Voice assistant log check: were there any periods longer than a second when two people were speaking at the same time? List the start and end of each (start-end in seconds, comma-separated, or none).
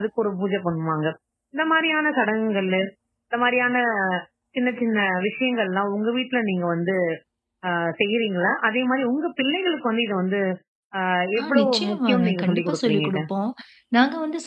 11.4-13.2